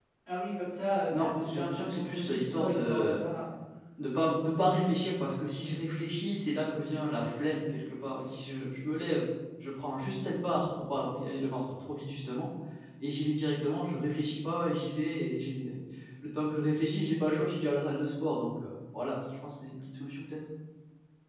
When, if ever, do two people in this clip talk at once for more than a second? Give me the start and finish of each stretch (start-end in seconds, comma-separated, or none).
1.1-3.1